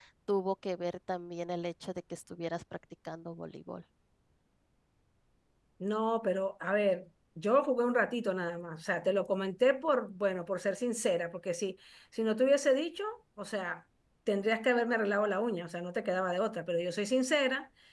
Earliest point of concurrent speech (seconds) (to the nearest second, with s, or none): none